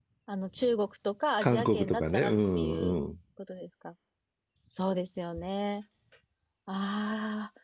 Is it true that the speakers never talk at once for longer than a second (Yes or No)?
No